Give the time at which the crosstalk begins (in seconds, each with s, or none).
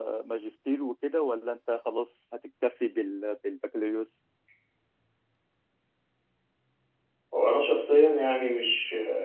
none